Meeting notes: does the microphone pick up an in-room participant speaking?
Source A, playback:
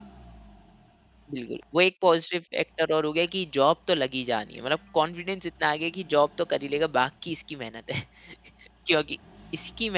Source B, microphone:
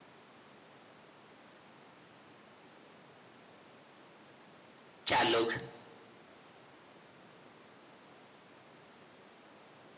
Yes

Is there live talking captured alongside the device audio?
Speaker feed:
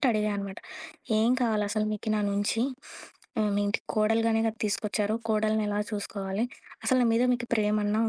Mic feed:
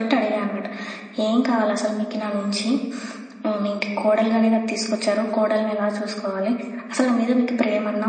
No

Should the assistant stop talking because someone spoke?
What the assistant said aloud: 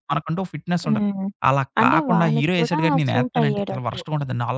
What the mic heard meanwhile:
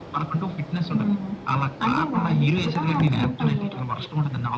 No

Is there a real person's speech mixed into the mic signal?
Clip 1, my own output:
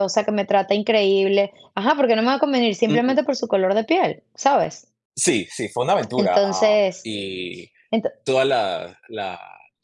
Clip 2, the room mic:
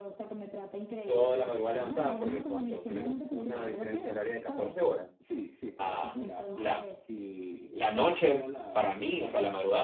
Yes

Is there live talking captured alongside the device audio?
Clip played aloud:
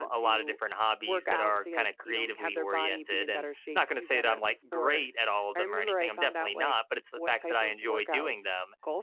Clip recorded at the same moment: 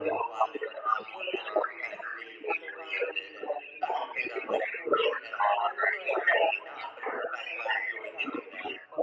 No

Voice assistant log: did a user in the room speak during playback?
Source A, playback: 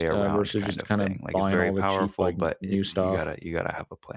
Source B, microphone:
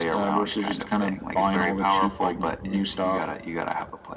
No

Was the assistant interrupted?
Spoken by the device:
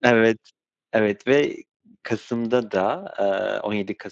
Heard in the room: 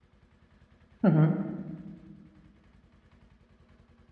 Yes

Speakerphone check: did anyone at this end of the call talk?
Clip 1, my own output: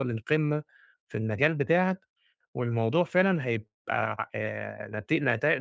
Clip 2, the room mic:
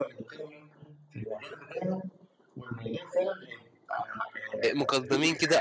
Yes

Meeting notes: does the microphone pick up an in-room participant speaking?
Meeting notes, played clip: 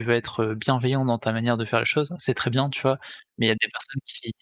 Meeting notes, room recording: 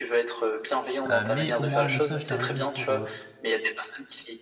Yes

